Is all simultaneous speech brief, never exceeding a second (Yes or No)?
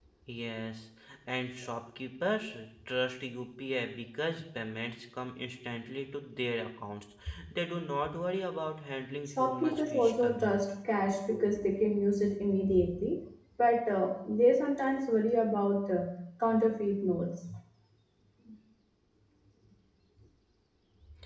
No